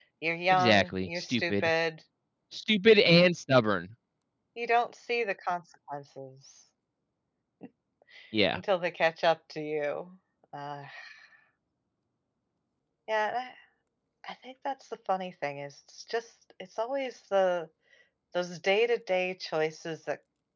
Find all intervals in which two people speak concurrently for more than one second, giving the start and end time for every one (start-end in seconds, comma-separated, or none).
0.5-1.7